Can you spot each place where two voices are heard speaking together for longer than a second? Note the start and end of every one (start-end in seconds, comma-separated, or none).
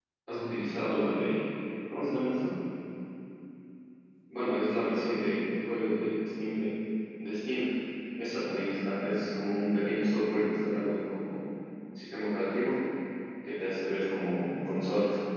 none